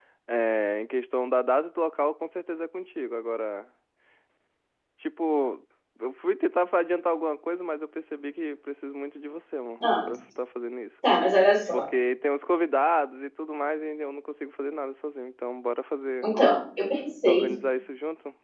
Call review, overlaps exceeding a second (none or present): none